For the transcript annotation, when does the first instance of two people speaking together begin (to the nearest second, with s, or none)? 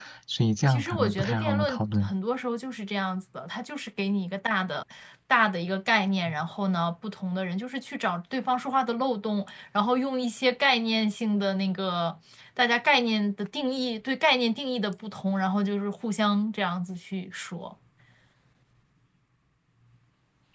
1 s